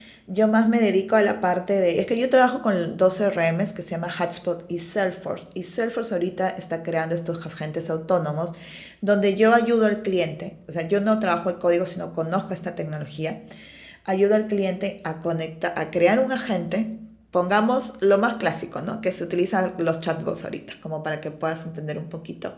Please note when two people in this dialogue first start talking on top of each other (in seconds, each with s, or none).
none